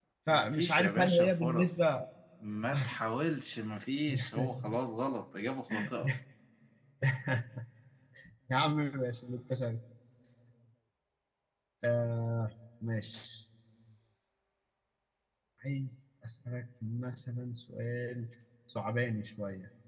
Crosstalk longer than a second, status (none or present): present